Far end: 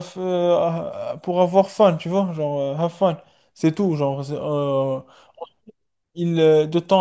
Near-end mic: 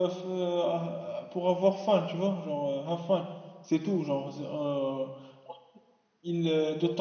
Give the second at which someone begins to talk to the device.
none

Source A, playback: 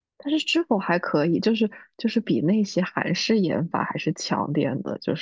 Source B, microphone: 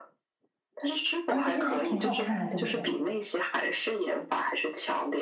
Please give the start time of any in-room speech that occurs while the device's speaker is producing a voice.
1.3 s

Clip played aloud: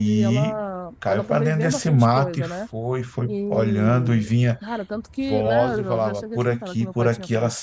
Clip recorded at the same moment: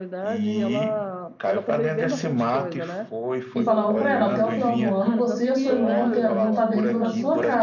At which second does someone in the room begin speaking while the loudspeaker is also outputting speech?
3.5 s

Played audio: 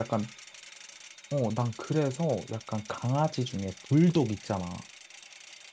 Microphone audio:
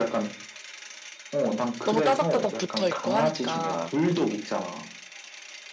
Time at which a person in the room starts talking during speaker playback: 1.8 s

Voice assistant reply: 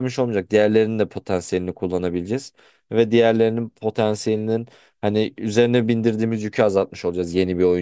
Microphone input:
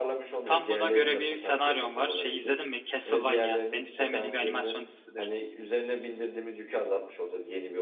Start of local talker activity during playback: 0.4 s

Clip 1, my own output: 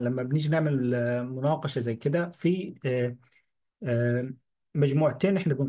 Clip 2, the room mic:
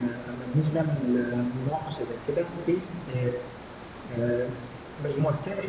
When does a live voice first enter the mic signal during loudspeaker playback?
none

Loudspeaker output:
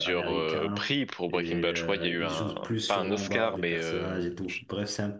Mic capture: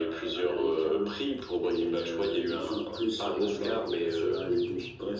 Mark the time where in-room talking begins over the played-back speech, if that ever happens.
none

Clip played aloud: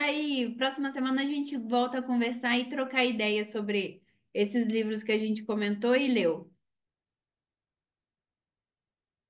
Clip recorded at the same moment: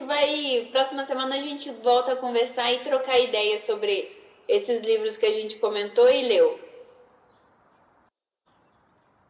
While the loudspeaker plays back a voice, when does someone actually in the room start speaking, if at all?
none

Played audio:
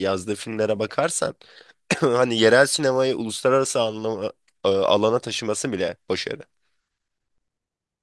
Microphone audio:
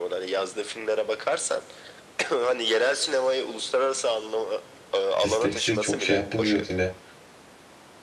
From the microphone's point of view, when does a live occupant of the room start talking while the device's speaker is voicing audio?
5.2 s

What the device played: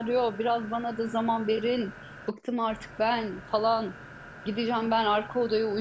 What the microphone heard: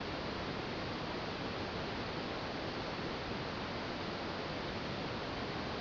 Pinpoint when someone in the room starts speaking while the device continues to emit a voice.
none

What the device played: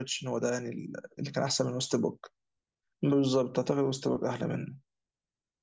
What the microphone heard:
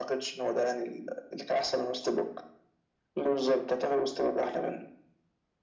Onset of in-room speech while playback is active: none

